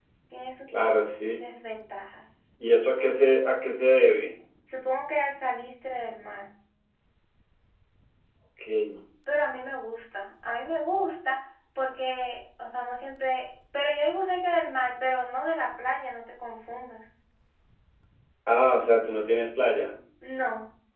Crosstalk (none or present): none